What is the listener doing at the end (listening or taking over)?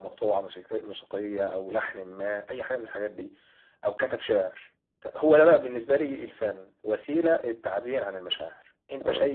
listening